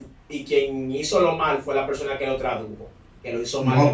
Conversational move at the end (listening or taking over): taking over